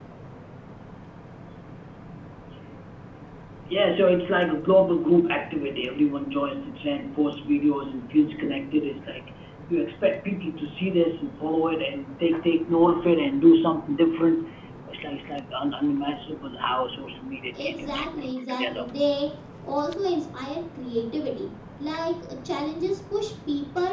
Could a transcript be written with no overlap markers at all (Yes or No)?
No